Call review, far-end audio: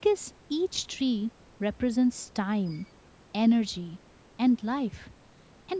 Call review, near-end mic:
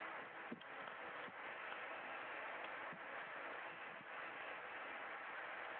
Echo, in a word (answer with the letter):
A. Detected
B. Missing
B